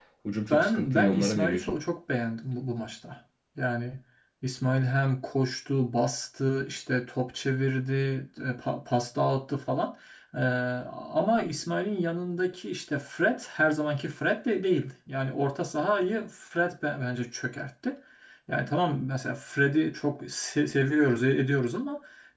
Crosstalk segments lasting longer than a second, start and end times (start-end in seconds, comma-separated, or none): 0.5-1.8